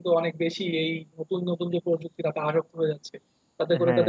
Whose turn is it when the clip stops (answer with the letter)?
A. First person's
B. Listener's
A